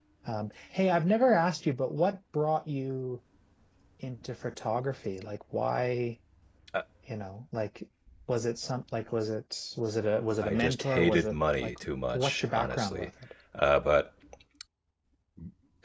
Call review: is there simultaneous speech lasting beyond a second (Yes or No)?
Yes